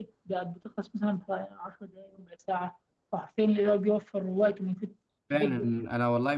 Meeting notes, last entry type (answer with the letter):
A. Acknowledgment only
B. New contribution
B